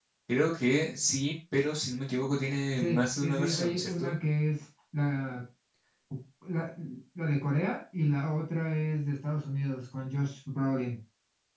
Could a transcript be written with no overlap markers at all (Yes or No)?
No